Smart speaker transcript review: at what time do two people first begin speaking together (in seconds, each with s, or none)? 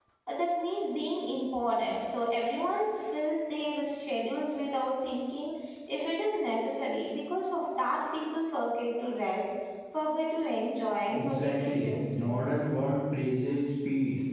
11.1 s